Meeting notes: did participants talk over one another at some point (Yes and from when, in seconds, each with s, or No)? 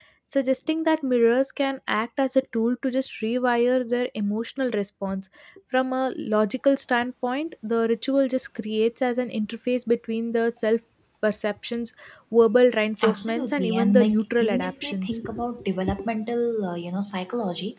Yes, from 13.0 s